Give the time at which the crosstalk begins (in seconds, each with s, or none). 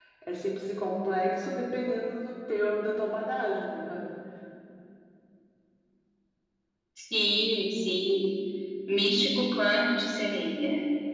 none